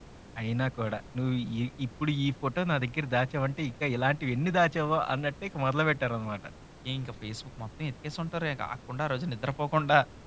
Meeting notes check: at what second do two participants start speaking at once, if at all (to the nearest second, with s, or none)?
none